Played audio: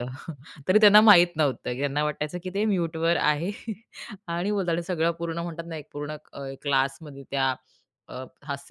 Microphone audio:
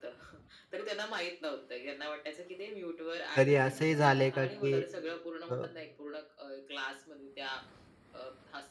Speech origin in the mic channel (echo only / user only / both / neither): both